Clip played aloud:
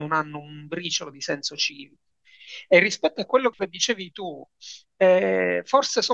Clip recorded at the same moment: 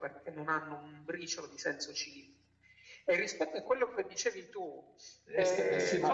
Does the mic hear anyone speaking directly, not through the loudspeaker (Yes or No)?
Yes